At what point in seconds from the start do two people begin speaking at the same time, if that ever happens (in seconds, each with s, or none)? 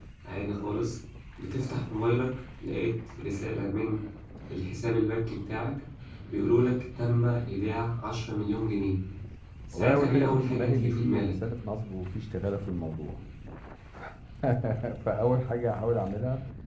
9.7 s